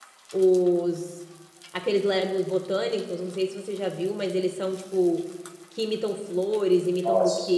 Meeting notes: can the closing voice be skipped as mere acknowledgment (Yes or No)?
Yes